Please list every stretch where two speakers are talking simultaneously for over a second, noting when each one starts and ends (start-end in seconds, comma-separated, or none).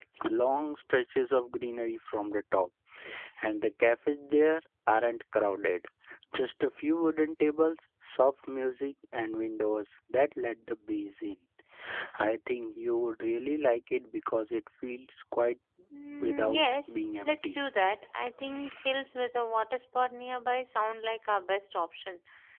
16.2-17.6